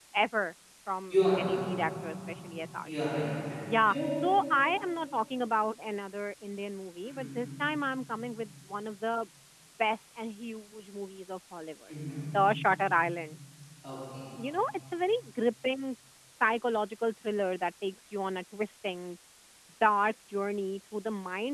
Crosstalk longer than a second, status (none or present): none